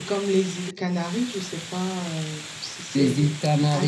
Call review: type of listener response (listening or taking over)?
taking over